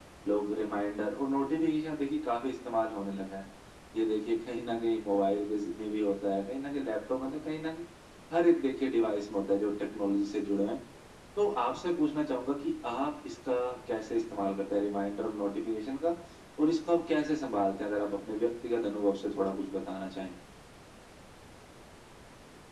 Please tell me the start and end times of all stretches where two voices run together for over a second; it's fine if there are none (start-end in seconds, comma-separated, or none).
none